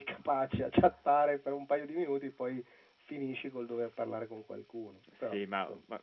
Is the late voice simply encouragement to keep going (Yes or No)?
No